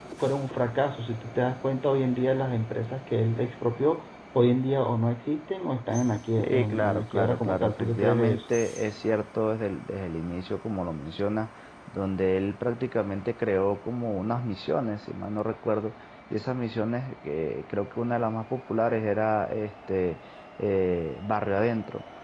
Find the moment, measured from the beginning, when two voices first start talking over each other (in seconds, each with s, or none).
6.4 s